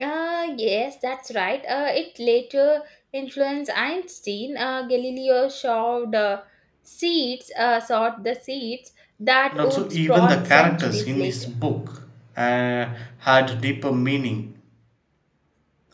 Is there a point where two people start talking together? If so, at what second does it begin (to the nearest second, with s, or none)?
10 s